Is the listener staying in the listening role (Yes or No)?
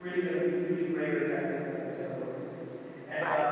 Yes